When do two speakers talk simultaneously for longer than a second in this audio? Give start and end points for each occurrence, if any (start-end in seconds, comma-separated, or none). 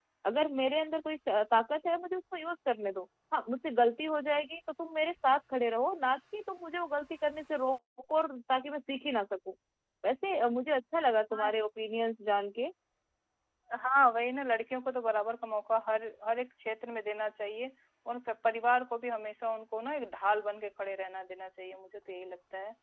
none